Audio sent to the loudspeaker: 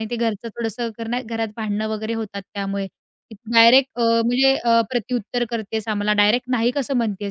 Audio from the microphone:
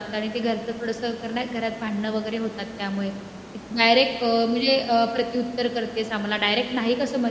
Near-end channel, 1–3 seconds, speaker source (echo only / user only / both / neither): echo only